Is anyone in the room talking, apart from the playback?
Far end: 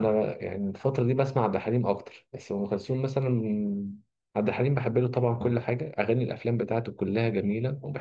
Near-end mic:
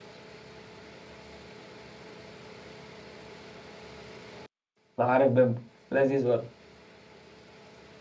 Yes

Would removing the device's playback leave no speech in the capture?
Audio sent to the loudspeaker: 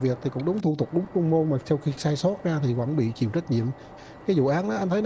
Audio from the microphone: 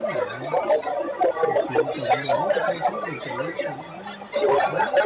No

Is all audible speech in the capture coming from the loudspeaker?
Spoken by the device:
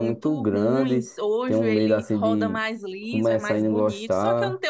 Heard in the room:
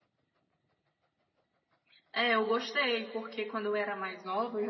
No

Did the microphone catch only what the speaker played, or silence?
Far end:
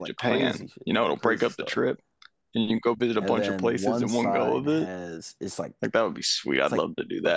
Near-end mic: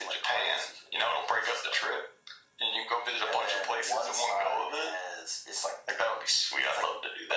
Yes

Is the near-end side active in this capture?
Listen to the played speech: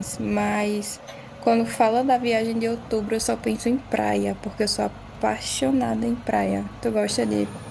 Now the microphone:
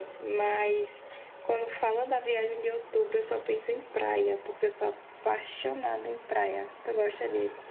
No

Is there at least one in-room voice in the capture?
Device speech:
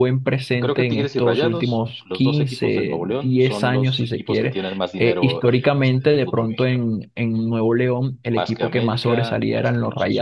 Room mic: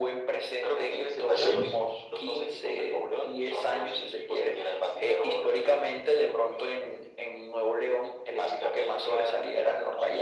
Yes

